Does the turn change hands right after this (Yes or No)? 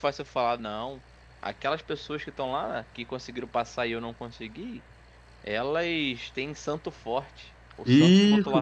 Yes